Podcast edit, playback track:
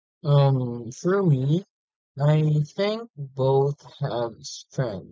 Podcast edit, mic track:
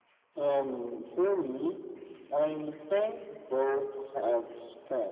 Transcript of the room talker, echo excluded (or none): none